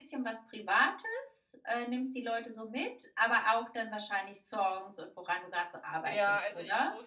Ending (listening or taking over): taking over